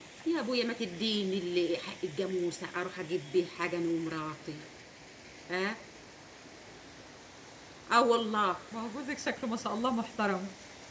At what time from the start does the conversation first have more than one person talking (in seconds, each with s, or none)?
none